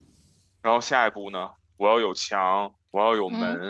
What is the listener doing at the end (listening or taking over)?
listening